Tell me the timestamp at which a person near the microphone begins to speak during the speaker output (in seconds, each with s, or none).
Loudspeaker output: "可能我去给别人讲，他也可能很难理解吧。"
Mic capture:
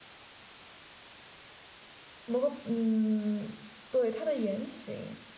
2.2 s